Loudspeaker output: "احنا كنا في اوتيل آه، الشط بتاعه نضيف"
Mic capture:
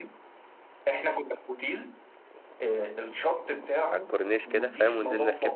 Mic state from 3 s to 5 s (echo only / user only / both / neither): both